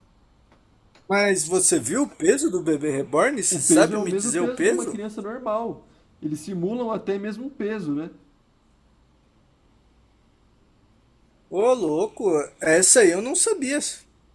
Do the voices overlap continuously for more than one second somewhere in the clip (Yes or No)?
Yes